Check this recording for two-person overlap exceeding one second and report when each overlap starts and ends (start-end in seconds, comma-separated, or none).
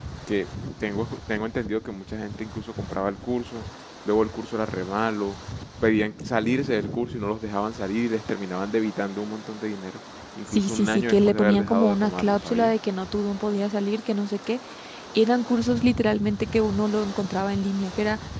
10.5-12.7